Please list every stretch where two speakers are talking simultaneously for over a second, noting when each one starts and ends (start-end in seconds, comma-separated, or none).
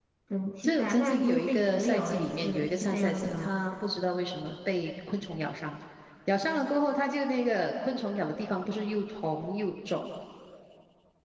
0.6-3.5